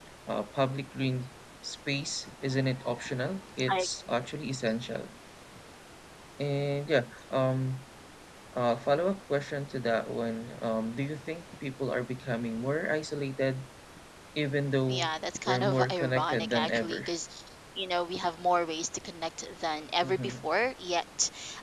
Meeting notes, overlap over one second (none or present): present